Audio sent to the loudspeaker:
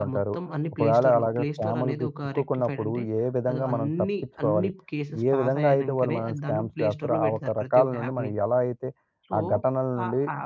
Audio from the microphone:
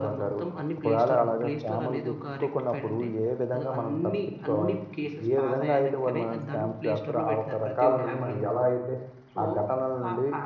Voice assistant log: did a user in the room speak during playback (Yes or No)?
No